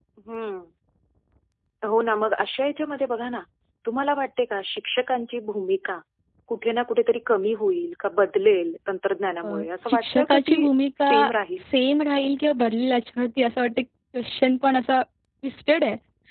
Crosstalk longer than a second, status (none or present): present